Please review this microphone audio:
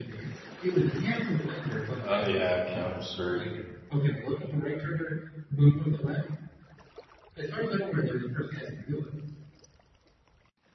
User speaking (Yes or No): Yes